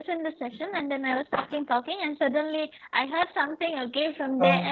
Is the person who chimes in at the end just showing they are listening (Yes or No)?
Yes